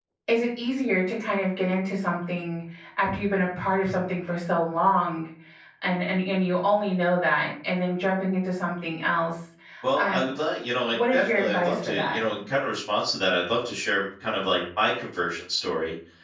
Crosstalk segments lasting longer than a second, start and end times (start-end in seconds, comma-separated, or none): 10.9-12.2